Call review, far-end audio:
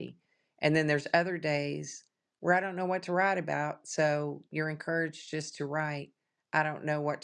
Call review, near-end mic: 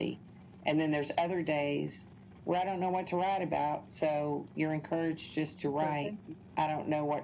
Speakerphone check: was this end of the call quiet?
No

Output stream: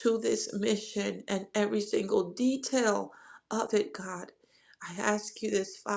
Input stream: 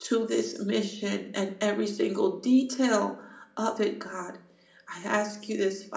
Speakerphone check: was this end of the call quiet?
Yes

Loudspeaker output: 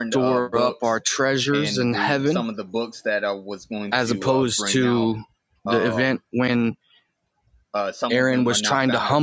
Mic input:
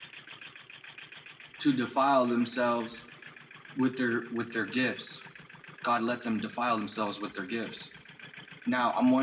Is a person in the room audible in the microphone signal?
Yes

